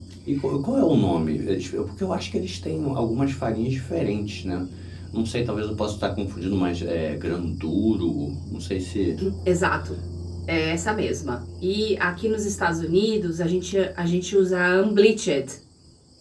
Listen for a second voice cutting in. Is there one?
No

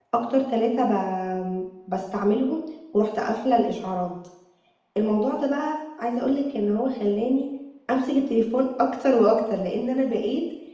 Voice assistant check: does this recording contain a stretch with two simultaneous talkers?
No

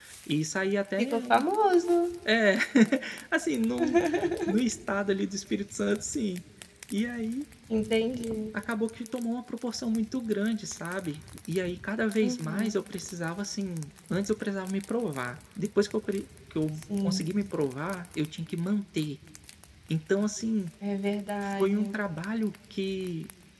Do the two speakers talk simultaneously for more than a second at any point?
No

